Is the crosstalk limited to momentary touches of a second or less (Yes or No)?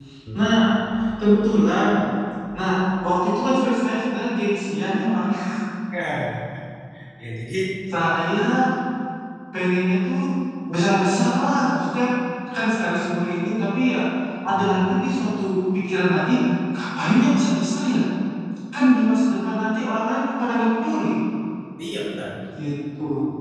Yes